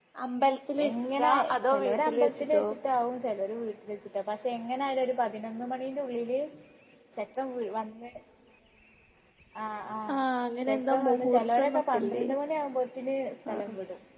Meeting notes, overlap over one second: present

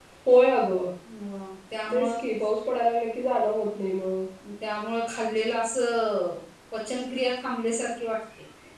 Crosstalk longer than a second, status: none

